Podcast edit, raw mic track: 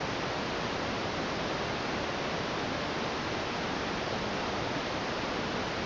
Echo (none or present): none